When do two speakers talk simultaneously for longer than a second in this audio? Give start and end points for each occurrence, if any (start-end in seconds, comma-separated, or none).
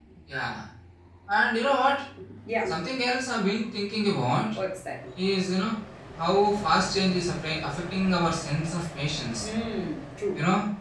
none